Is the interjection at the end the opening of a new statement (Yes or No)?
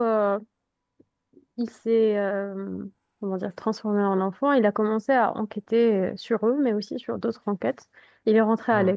No